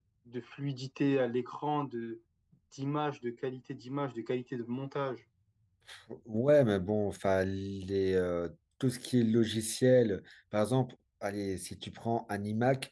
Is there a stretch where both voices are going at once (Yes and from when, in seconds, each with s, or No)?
No